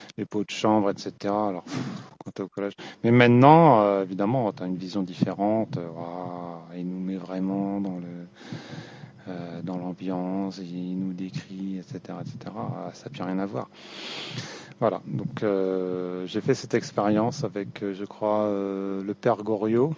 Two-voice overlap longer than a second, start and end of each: none

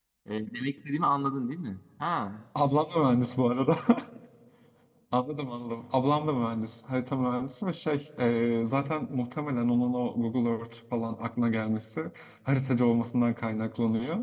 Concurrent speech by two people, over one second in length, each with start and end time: none

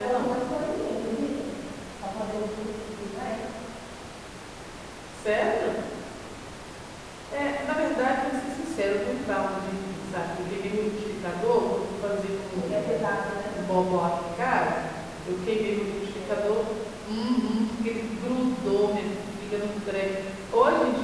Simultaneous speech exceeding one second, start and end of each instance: none

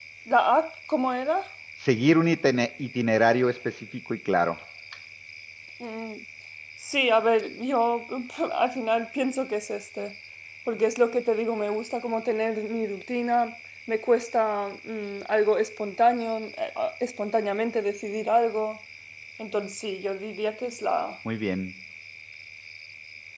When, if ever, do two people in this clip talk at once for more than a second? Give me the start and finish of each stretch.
none

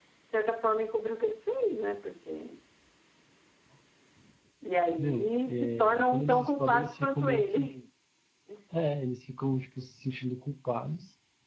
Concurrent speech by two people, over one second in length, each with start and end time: 5.0-7.8

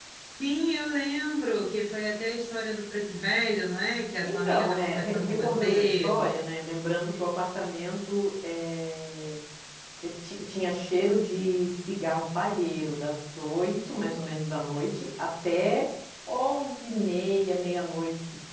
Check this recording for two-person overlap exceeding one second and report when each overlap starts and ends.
4.2-6.1

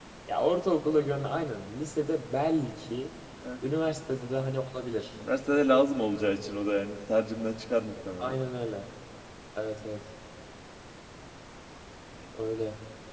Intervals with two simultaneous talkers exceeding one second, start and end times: none

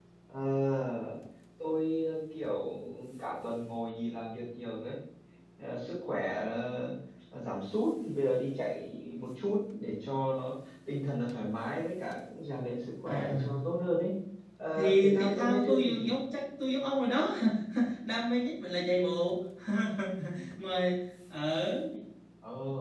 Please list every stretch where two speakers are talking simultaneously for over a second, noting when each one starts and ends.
14.8-16.1

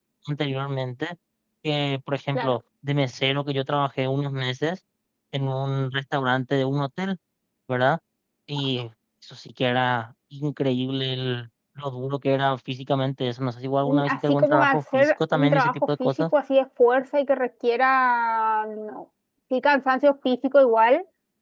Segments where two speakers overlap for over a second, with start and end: 13.8-16.1

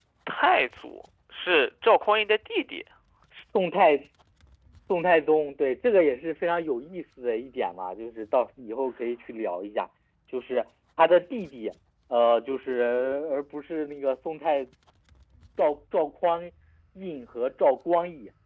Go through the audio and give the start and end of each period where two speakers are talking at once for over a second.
none

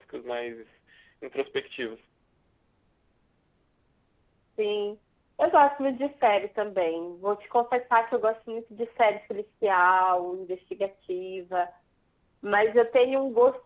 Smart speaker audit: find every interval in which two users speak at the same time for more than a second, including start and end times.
none

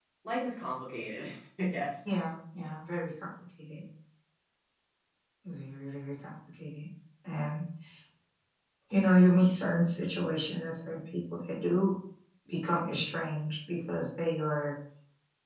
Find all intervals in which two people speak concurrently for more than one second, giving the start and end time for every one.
none

